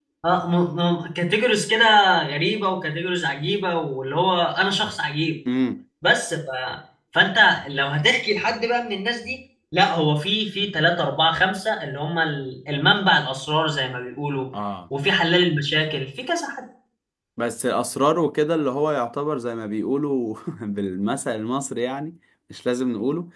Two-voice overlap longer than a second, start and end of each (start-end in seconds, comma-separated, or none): none